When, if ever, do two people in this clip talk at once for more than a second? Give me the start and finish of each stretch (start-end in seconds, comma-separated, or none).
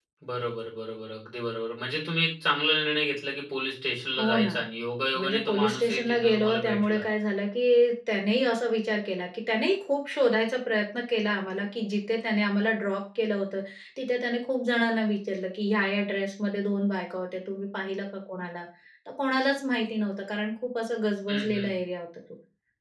5.2-7.0